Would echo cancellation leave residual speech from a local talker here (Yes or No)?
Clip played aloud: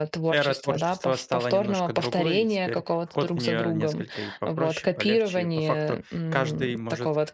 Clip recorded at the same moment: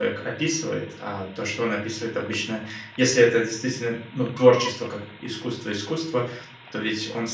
Yes